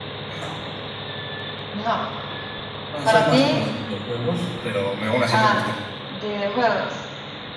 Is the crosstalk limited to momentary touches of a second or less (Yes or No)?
Yes